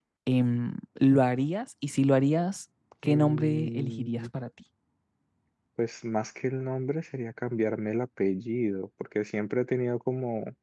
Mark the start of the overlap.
3.0 s

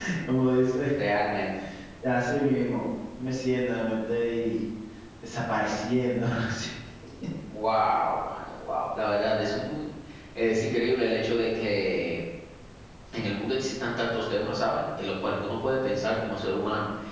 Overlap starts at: none

